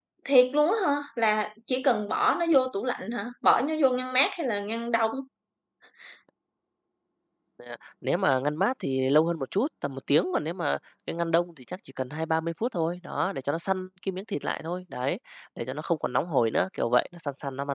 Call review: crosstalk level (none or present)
none